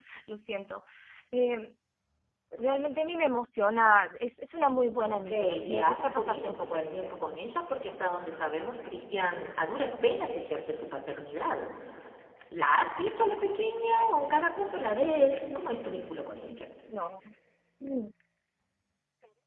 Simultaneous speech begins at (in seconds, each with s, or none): 5.0 s